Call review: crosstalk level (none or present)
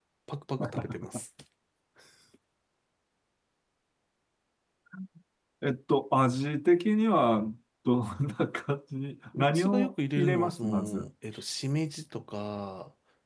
present